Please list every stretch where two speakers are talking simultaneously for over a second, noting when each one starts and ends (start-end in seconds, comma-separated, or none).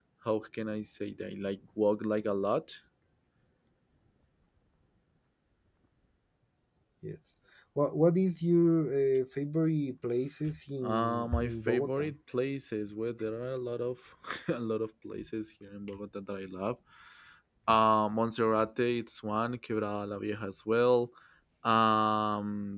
10.8-12.1